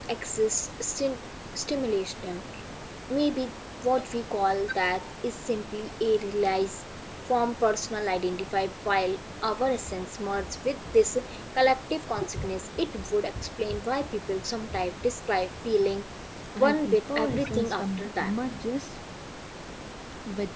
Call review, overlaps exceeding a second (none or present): present